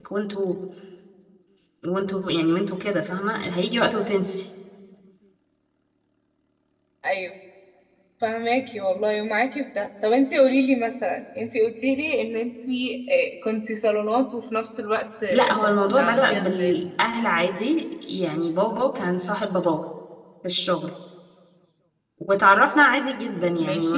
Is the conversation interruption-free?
No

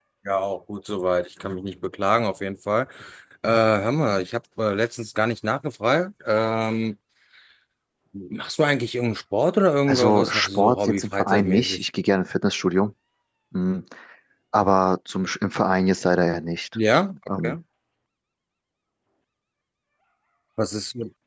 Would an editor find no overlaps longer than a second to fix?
No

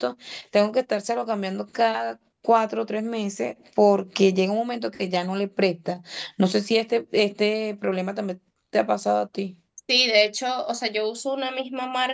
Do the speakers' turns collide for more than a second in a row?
No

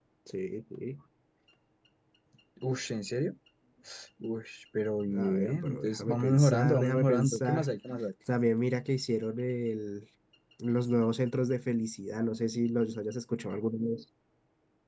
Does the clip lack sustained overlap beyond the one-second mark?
No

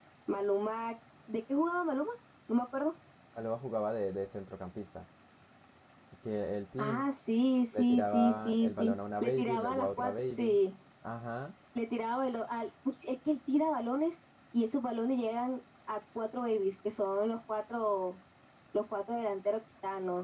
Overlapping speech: Yes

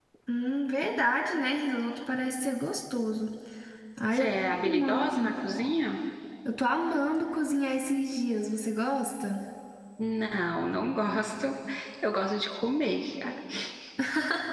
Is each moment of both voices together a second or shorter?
No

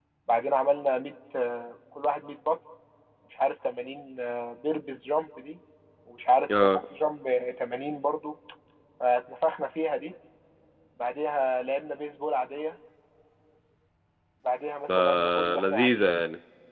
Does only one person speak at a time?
No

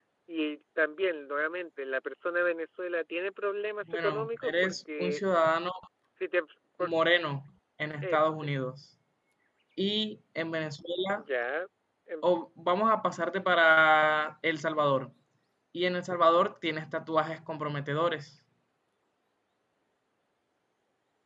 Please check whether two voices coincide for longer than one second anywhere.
Yes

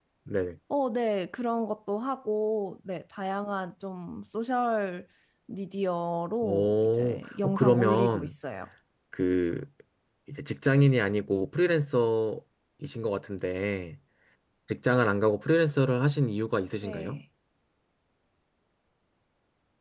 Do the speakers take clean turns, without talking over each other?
No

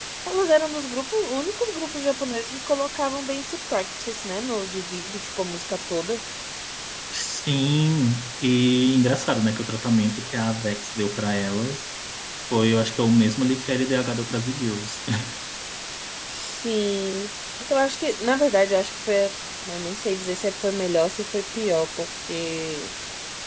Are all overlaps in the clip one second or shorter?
Yes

